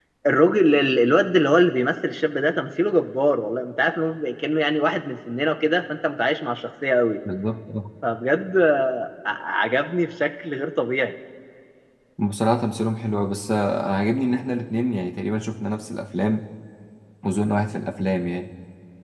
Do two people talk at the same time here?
No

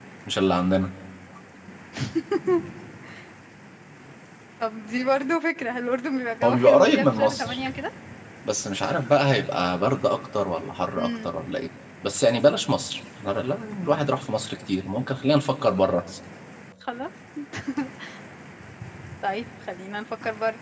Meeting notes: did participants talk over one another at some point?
Yes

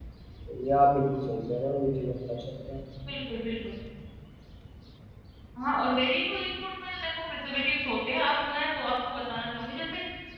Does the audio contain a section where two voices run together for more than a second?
No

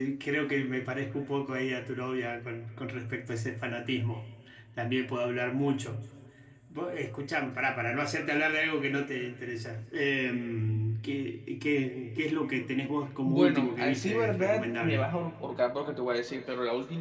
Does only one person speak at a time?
No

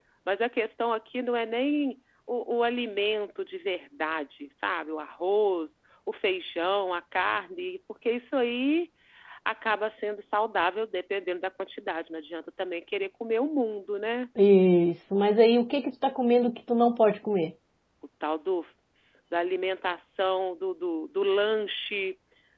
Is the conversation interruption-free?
Yes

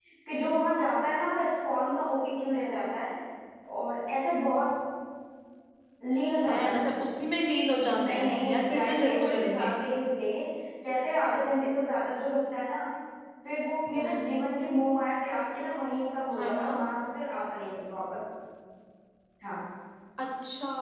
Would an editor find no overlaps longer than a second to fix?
No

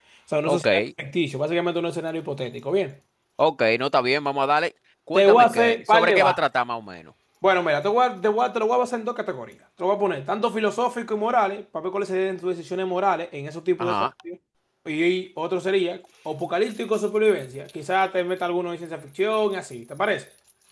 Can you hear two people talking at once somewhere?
Yes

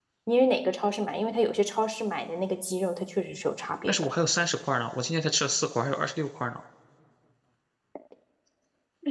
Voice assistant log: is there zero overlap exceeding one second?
Yes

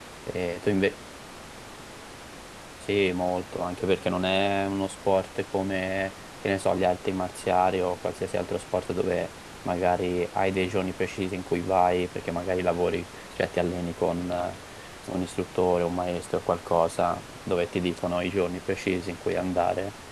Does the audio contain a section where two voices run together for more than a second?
No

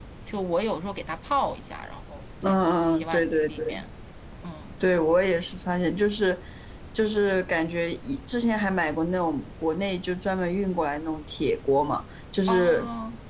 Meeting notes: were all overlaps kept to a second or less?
No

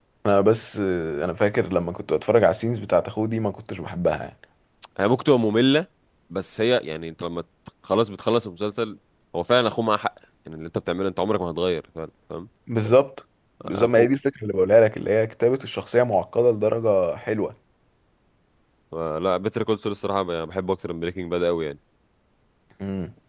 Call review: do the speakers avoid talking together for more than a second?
Yes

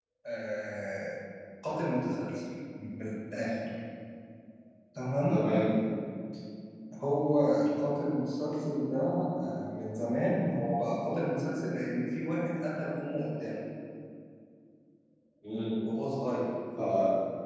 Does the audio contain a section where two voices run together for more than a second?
No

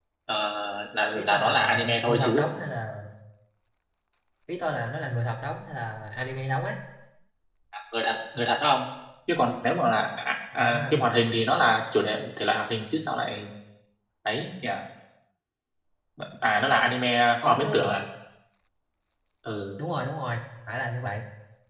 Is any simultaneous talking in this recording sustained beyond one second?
Yes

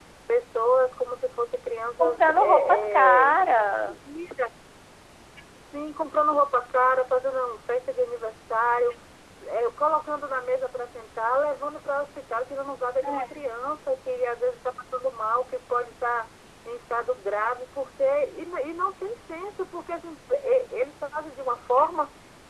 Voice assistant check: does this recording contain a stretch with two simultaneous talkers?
Yes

